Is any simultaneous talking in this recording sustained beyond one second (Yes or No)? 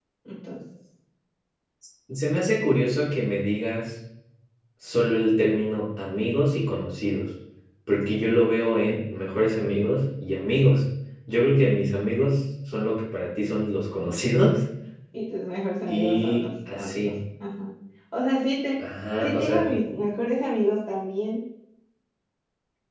Yes